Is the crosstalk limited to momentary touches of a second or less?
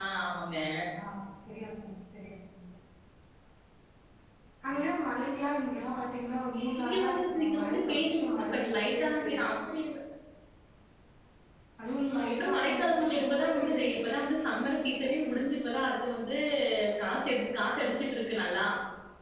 No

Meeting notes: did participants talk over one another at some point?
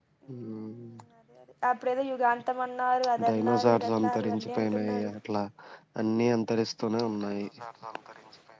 Yes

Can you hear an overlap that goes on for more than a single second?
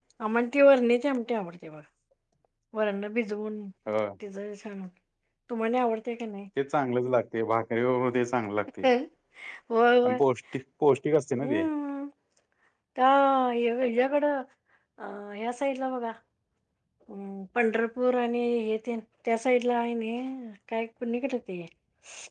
No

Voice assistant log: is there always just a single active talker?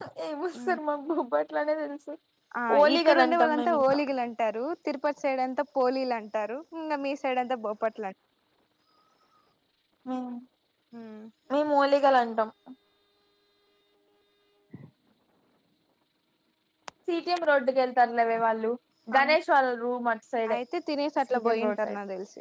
No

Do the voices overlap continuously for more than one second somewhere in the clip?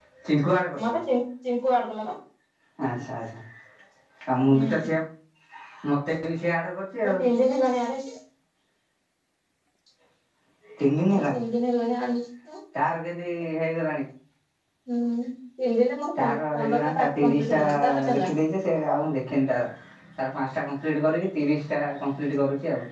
Yes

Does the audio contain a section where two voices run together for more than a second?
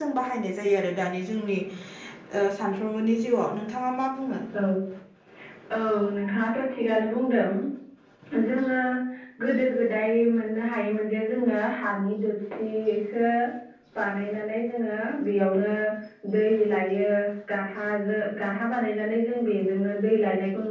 No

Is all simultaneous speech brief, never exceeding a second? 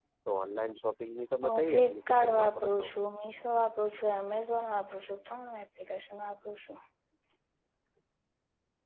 No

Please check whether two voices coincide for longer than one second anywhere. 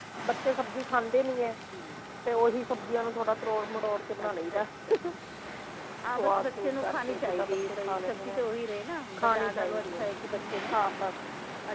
Yes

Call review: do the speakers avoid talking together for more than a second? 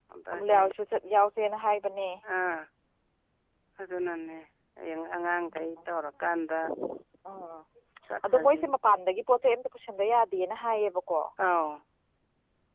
Yes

